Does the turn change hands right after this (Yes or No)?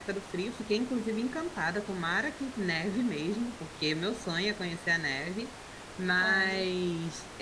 No